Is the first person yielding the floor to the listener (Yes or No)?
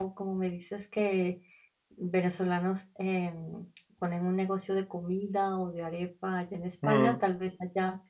No